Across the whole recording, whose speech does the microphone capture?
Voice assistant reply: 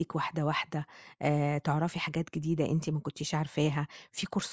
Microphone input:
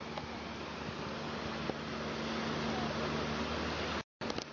neither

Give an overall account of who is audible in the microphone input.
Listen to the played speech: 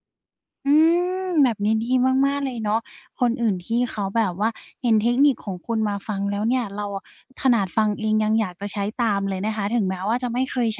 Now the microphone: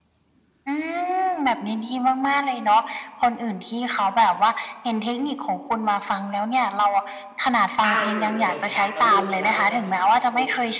both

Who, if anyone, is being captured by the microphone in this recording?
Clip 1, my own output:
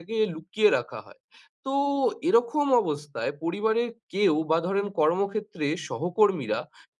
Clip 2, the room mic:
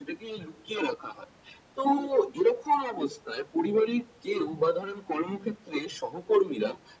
echo only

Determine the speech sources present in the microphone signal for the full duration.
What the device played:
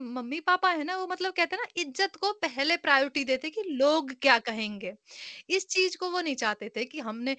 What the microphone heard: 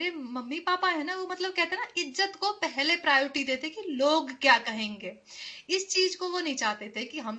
echo only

